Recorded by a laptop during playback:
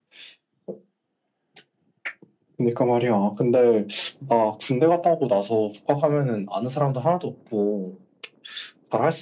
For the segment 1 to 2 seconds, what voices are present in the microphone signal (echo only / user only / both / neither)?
neither